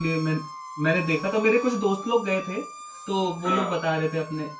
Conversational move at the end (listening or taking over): listening